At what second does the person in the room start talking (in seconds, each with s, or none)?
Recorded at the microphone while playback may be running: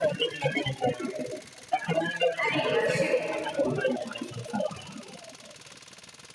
2.5 s